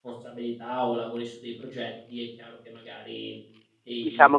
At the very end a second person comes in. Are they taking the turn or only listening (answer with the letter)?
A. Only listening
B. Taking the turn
B